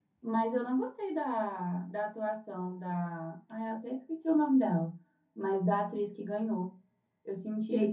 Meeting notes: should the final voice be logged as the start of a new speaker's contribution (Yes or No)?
Yes